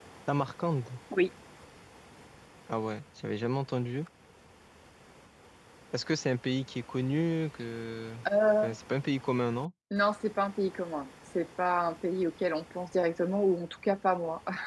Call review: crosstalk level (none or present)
none